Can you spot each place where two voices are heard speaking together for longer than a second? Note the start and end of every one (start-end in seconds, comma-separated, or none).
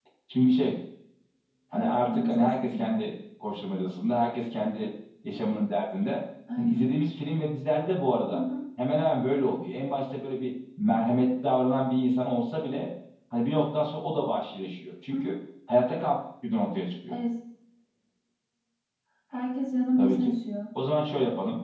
1.7-3.0